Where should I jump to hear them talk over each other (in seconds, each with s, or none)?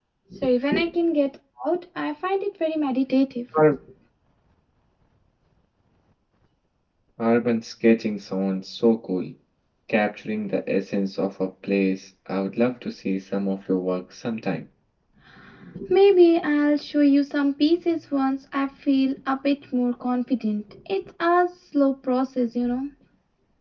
none